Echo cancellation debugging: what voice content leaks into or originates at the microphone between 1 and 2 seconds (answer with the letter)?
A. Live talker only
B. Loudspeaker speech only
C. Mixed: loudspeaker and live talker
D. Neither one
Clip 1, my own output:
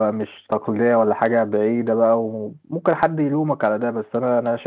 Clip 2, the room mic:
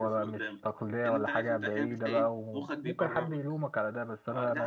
C